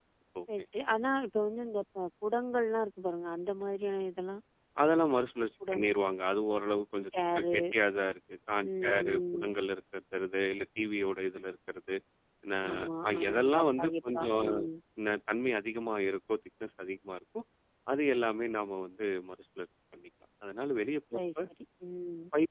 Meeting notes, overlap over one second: present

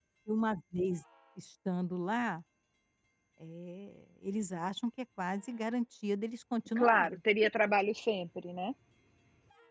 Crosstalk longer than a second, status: none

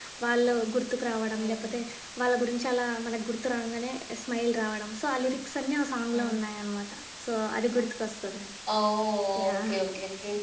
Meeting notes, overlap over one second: none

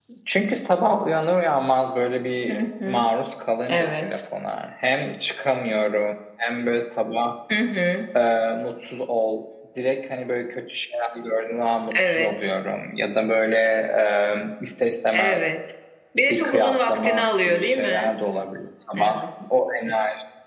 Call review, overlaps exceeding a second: present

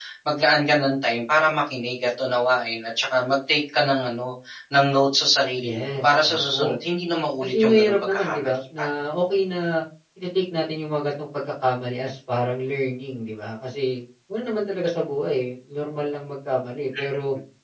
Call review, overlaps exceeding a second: present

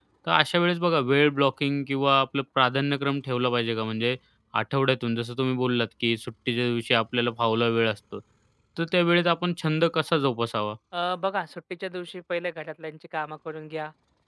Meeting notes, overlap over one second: none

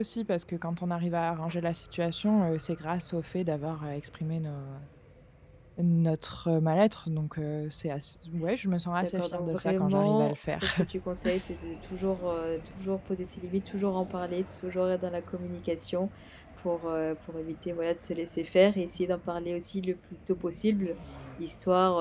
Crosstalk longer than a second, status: present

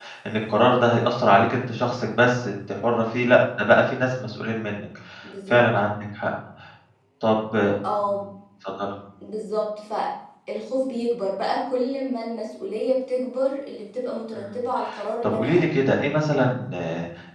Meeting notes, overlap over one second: none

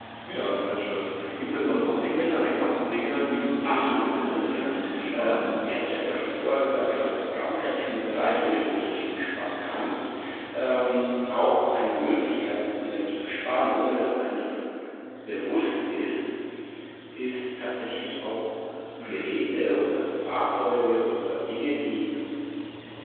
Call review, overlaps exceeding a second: present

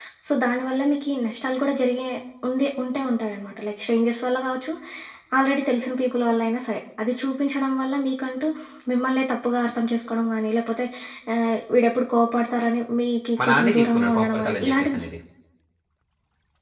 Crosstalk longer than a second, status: present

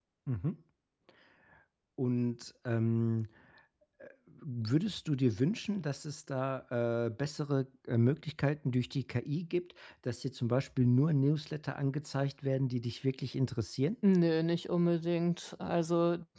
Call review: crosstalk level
none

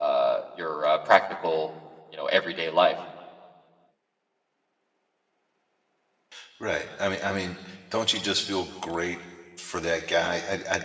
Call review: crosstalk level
none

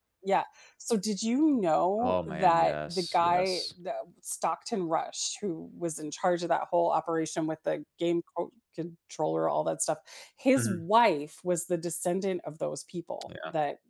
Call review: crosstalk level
present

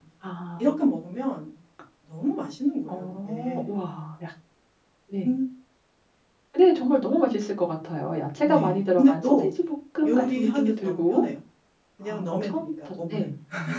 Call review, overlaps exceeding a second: present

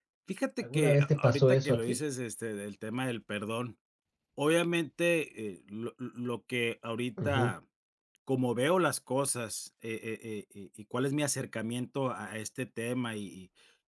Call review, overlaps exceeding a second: present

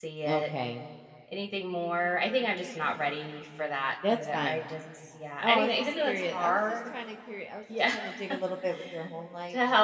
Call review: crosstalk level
present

